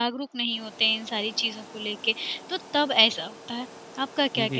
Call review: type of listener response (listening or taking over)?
taking over